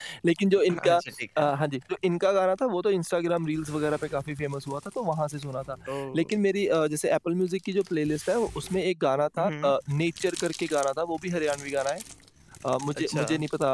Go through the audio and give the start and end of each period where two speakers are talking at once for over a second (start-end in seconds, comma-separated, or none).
none